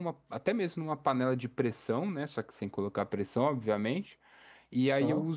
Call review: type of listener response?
listening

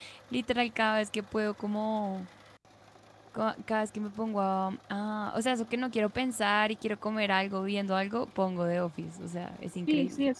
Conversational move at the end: taking over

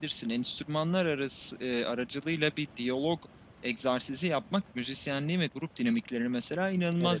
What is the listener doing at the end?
listening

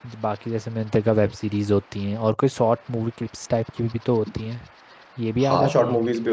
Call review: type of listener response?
taking over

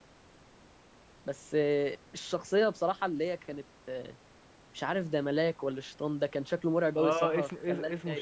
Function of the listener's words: taking over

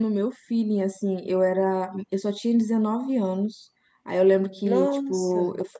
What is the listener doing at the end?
listening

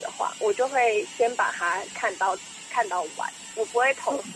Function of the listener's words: listening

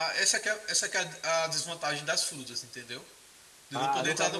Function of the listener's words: taking over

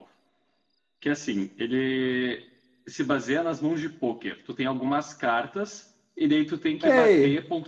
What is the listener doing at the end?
taking over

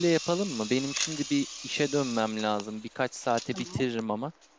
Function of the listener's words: listening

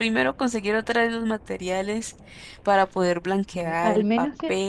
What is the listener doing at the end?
taking over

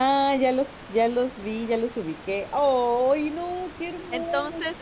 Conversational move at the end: taking over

